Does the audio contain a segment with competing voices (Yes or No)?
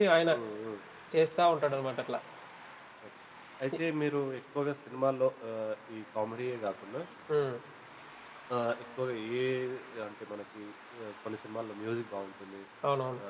No